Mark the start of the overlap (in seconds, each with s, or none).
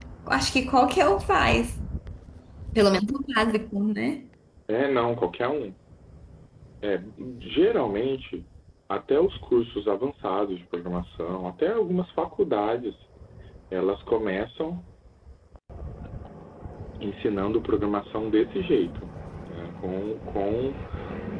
none